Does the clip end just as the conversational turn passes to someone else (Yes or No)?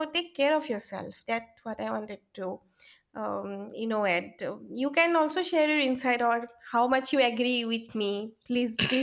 Yes